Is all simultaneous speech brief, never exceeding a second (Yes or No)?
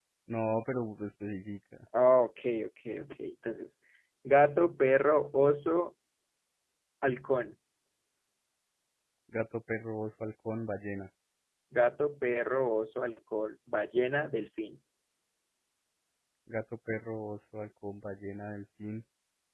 Yes